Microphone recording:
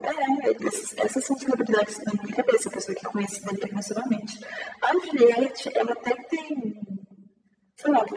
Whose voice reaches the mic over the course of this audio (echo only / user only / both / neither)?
echo only